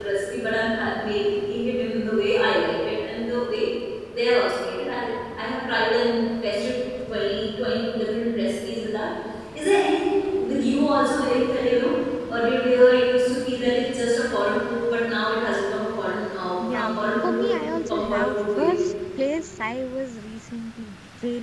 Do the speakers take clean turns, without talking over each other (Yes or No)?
No